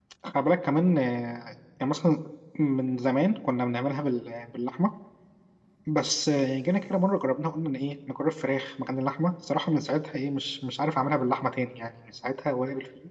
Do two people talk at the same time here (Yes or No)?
No